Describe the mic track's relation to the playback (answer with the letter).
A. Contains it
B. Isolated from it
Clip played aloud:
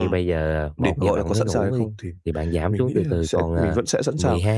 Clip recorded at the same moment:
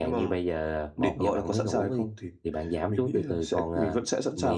A